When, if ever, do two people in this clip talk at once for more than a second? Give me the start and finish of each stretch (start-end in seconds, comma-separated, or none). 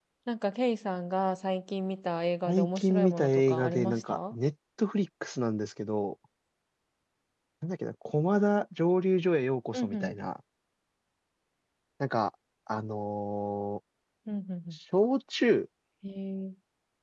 2.5-4.3